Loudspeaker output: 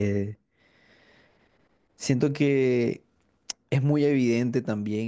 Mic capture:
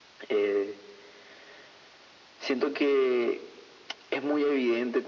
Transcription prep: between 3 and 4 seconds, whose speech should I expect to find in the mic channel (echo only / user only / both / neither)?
echo only